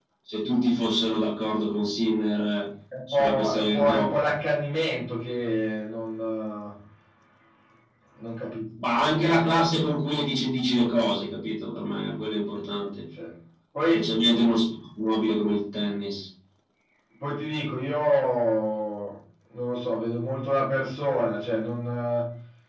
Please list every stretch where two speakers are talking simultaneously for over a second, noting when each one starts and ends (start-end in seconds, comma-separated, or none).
3.1-4.3